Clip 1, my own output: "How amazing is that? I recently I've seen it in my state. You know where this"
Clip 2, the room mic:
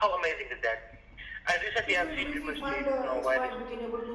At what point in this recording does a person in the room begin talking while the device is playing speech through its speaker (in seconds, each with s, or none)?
1.8 s